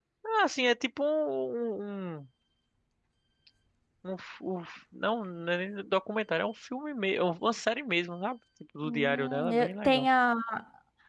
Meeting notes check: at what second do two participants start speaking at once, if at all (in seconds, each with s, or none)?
8.8 s